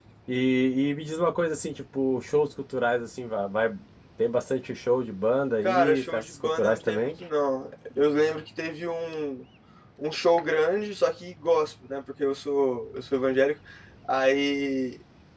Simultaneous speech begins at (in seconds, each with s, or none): 5.6 s